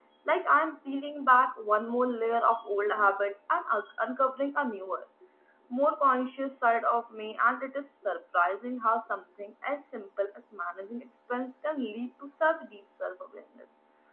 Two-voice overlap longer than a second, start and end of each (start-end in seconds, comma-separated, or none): none